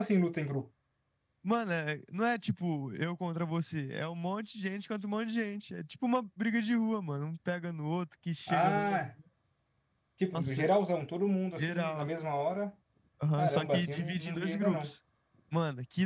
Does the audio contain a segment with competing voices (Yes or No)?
Yes